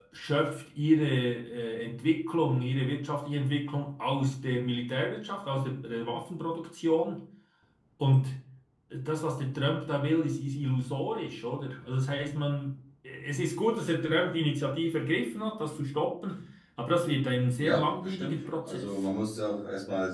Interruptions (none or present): present